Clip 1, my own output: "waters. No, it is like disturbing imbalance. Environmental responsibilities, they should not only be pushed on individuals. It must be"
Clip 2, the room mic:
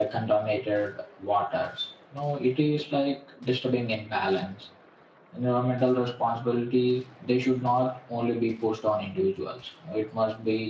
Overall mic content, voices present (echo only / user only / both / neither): echo only